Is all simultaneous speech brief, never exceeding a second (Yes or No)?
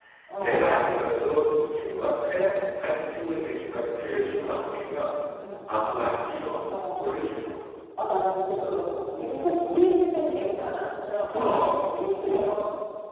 Yes